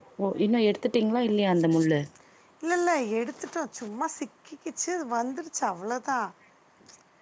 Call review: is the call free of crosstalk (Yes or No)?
Yes